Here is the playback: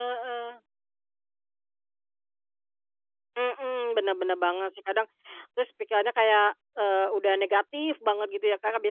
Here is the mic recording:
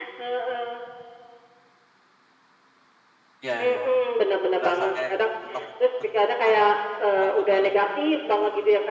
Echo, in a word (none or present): present